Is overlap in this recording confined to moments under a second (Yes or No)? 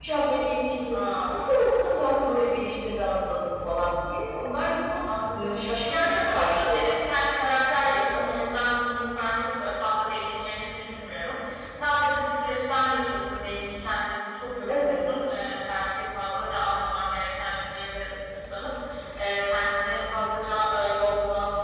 No